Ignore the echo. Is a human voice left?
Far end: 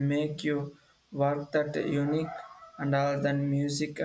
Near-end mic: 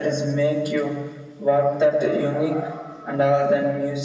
No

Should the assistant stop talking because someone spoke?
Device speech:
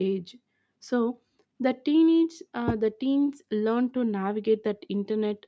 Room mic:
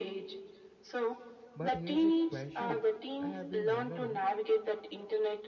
Yes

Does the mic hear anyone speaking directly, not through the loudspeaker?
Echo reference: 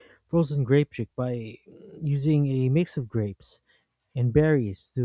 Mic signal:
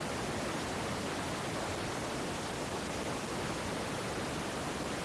No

